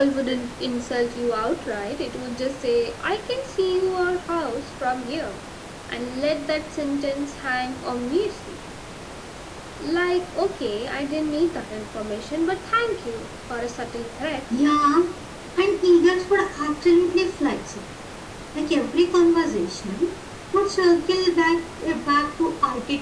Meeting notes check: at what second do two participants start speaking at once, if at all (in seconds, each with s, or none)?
none